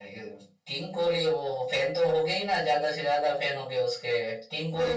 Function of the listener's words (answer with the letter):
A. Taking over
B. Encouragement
A